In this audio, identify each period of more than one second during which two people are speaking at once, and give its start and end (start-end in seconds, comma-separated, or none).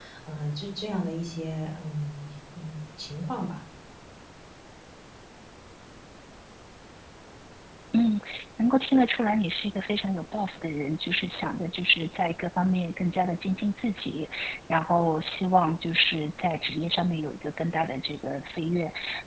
none